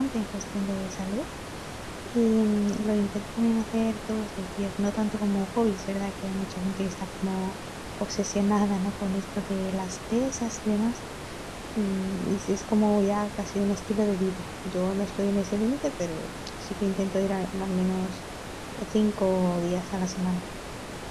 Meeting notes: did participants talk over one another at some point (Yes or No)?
No